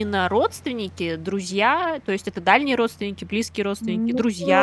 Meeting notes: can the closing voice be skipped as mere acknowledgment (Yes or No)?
No